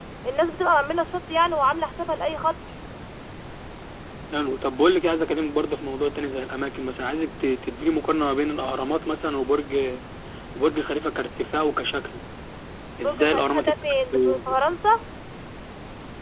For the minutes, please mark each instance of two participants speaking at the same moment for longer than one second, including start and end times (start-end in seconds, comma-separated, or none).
13.0-14.6